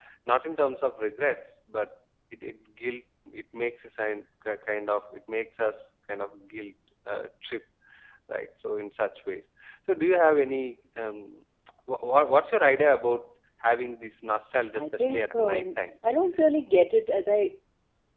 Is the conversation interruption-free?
No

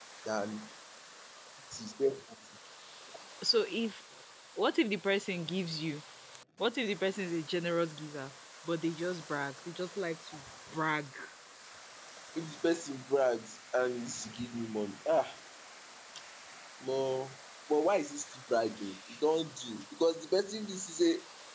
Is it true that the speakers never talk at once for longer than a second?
Yes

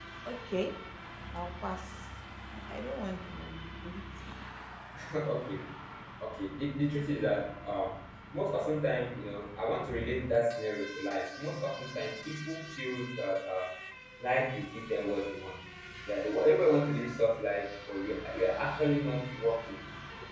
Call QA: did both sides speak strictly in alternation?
Yes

